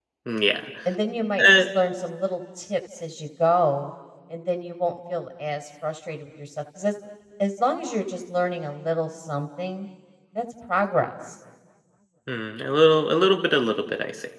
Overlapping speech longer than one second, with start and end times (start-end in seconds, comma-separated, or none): none